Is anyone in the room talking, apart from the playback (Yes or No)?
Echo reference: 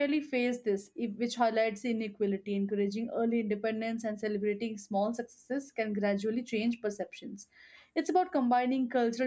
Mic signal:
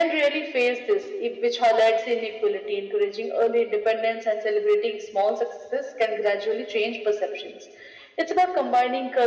No